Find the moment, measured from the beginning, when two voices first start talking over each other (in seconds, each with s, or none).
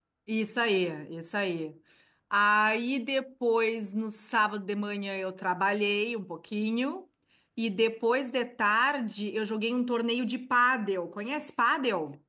none